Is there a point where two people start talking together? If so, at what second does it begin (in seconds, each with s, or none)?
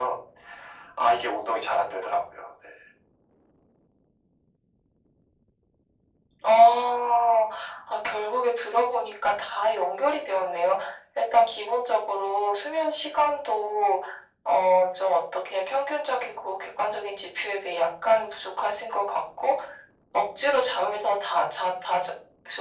none